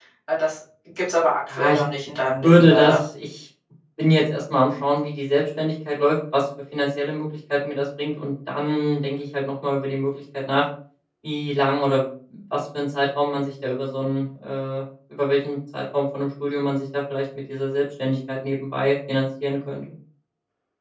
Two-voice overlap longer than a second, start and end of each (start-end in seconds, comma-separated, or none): none